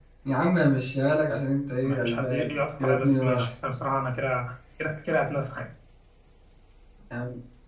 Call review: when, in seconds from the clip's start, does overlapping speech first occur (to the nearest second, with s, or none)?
2 s